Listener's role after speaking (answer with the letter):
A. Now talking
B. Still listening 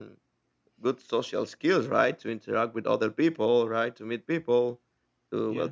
B